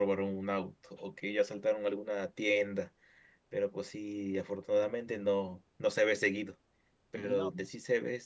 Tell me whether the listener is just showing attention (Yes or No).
Yes